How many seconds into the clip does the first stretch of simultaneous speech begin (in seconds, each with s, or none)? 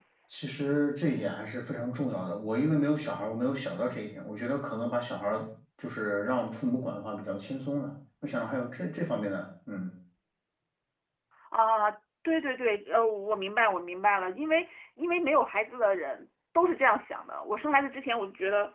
none